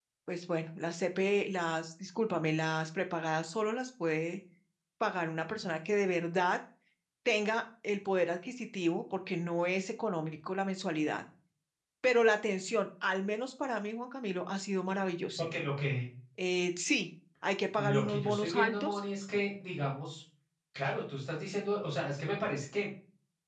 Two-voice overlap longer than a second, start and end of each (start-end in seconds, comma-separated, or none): 17.8-19.0